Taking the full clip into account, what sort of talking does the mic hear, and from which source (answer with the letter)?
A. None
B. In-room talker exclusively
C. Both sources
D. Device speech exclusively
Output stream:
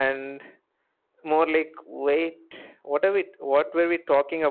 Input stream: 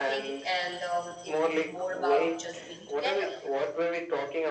C